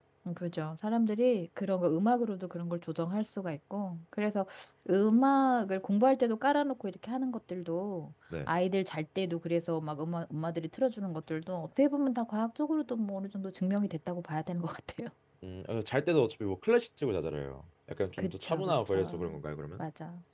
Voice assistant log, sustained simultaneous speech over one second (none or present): present